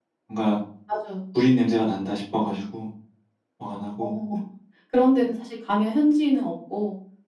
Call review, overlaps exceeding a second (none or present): none